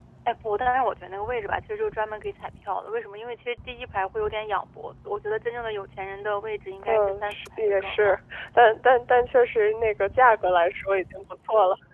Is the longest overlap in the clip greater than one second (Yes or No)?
Yes